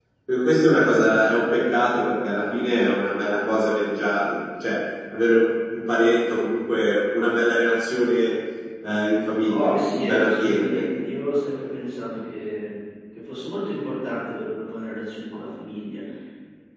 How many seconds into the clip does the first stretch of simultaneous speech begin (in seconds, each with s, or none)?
9.5 s